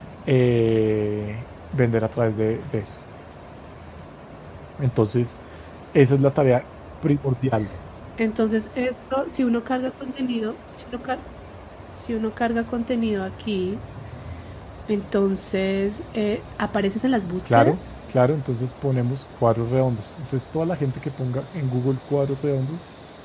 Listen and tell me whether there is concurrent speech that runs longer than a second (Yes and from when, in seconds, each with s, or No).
No